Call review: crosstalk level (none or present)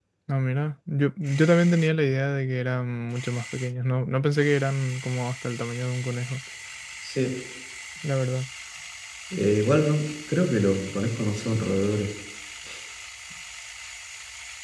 none